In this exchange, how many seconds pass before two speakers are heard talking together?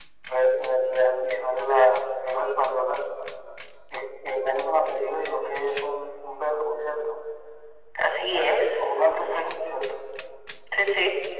8.2 s

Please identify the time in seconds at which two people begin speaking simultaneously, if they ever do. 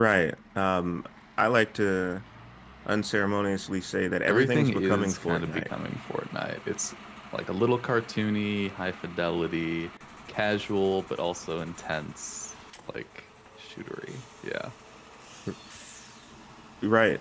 4.2 s

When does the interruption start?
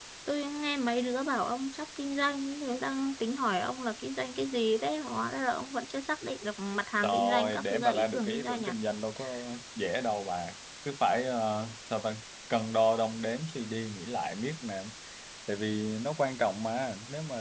7.0 s

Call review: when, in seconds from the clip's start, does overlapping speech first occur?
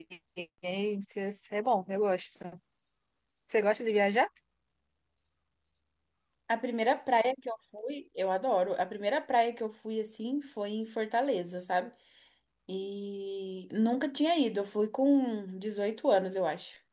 none

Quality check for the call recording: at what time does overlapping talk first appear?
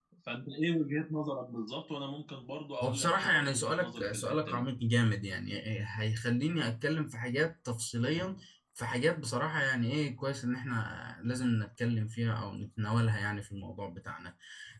2.8 s

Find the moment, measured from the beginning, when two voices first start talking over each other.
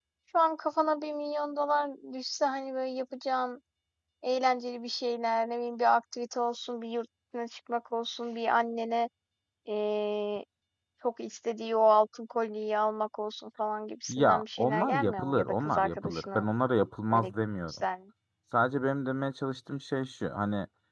14.1 s

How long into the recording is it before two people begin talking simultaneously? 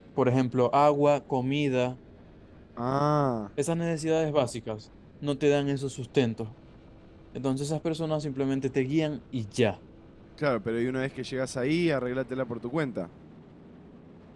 none

